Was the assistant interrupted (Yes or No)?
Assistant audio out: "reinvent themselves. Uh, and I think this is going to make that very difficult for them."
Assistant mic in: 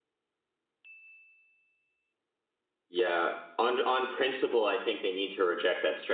Yes